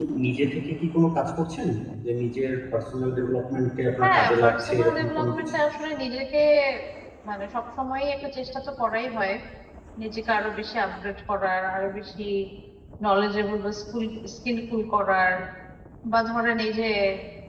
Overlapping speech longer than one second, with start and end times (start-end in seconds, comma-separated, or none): 4.0-5.5